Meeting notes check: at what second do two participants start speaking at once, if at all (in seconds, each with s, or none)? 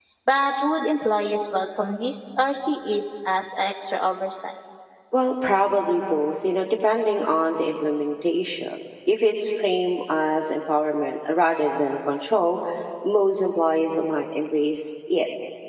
none